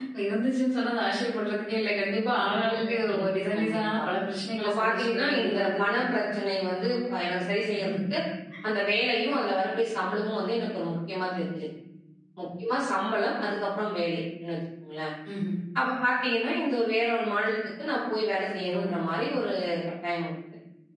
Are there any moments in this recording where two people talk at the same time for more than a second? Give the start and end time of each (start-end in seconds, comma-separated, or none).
2.4-4.0, 4.6-6.1